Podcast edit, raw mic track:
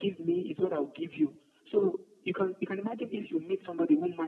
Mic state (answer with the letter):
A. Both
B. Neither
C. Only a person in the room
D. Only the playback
D